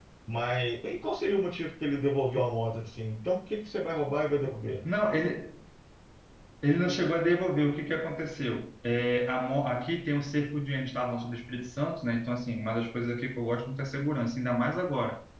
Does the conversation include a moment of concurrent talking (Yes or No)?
No